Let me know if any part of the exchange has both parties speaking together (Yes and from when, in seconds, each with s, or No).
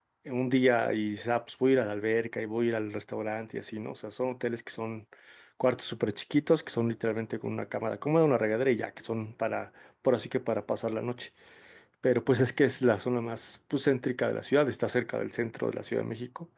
No